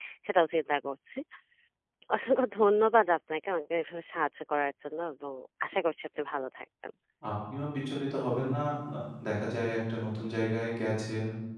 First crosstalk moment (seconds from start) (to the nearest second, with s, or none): none